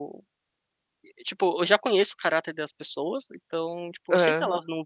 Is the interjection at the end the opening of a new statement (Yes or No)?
No